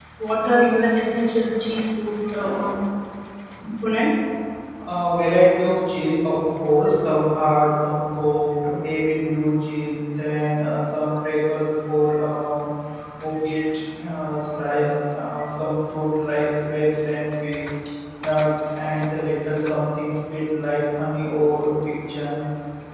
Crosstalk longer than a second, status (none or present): none